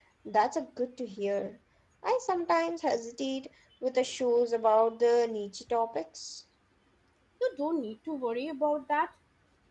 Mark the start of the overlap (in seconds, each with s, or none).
none